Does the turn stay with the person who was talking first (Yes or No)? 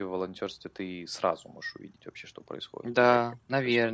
No